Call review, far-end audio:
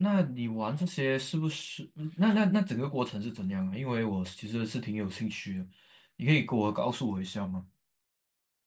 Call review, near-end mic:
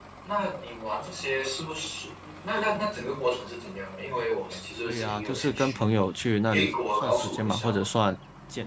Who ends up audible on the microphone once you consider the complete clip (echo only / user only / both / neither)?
both